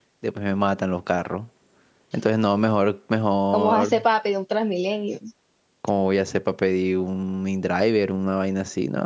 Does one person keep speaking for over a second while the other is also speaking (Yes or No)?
No